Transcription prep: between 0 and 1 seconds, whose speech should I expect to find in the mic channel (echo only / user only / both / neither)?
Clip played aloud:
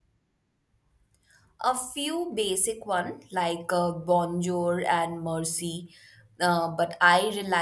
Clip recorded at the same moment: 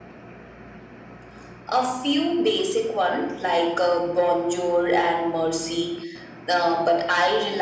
neither